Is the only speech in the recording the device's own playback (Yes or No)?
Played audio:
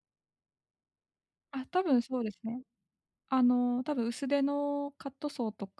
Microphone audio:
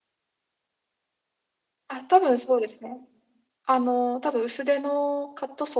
Yes